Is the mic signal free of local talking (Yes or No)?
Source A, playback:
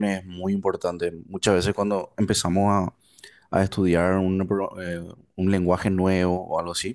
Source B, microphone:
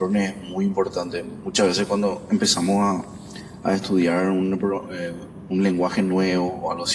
Yes